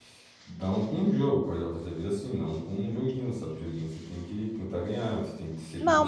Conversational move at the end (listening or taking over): taking over